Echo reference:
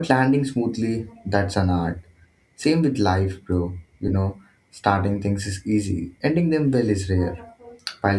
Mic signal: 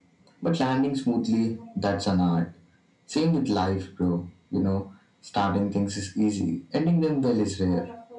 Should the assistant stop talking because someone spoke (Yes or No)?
No